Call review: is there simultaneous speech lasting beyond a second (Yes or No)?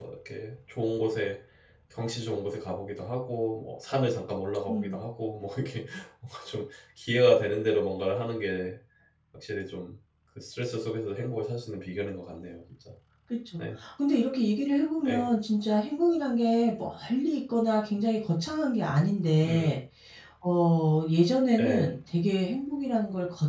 No